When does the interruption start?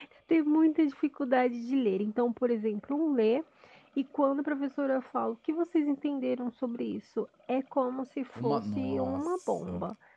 8.3 s

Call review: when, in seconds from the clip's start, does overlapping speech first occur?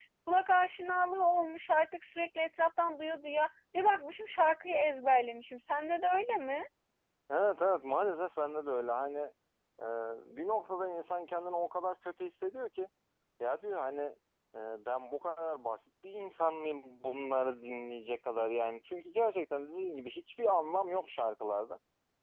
none

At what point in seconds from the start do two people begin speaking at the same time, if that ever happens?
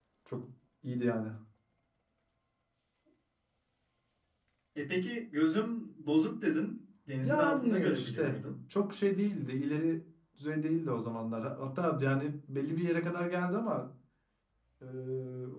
7.1 s

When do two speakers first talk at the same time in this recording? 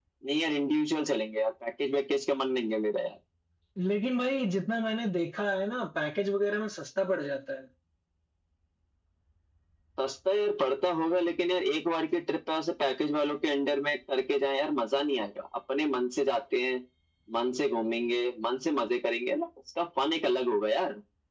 none

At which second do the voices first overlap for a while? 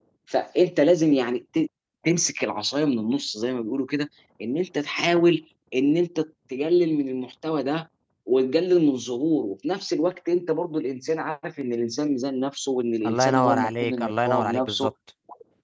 13.0 s

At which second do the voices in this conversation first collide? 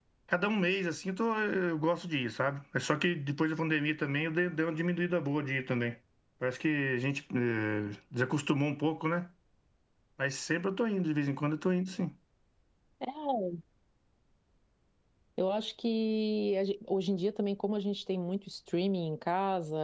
none

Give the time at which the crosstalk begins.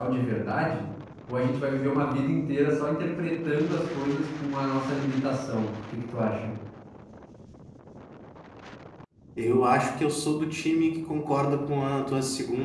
none

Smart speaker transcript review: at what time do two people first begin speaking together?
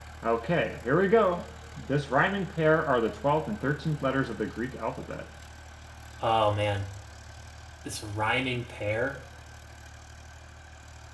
none

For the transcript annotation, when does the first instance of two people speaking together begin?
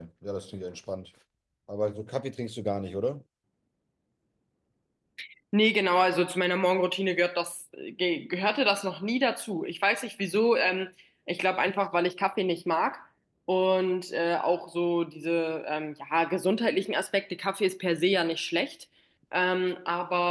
none

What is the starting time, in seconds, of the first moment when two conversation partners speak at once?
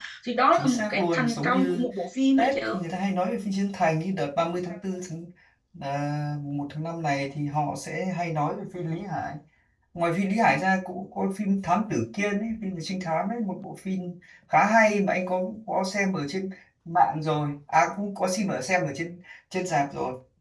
0.5 s

